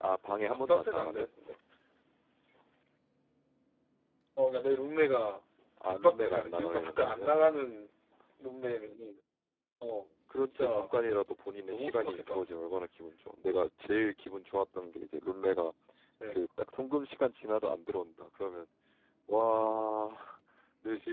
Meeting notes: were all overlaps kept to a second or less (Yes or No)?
No